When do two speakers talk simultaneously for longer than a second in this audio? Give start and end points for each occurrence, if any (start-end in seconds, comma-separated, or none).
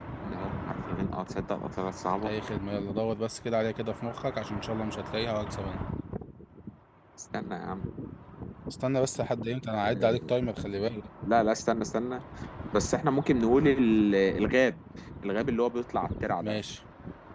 none